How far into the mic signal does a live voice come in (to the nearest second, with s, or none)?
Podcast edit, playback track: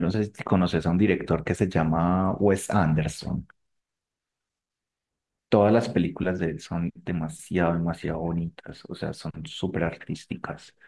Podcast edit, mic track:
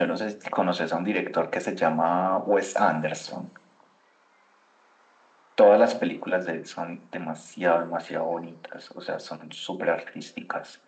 none